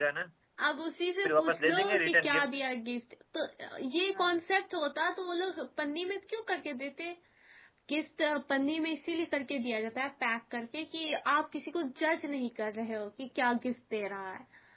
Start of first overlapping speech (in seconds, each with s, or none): 1.2 s